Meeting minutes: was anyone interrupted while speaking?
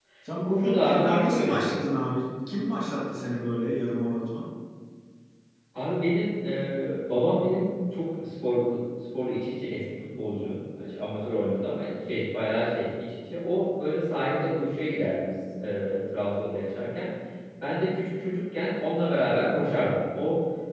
Yes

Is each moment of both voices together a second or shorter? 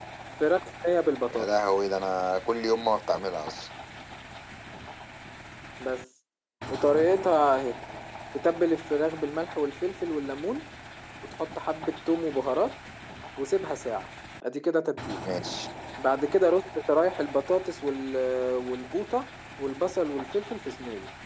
Yes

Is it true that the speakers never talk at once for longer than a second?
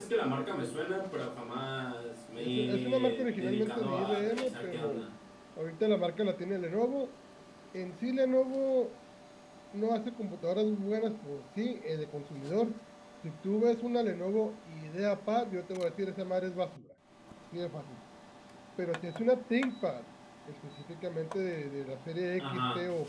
No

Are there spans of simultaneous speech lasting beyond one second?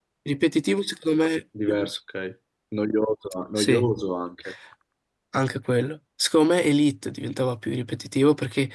No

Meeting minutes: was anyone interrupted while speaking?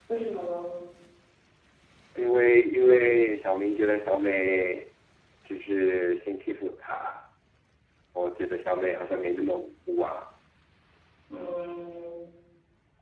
No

